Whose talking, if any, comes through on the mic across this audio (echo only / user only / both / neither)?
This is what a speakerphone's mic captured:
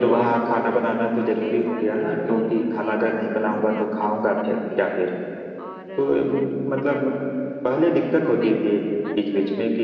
both